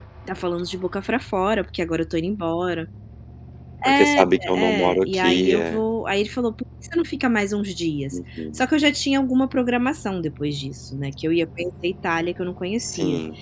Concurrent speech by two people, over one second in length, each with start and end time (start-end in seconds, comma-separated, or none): 3.9-5.8